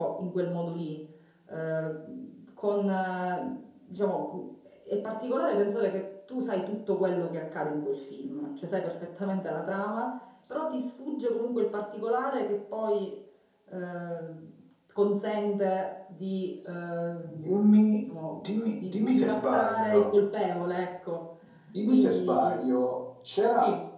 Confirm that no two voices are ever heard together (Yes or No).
No